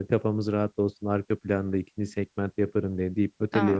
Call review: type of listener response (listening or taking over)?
taking over